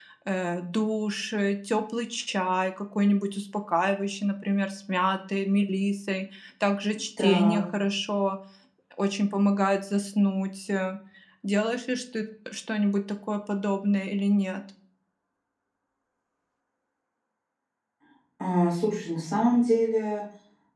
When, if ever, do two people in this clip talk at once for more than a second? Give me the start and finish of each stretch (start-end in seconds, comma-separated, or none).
none